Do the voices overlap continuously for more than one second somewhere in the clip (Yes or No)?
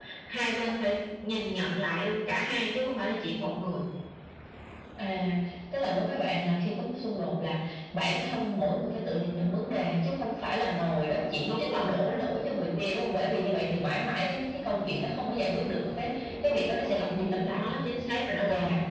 No